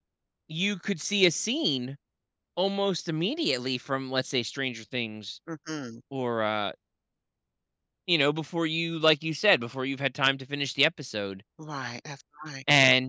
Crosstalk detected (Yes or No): No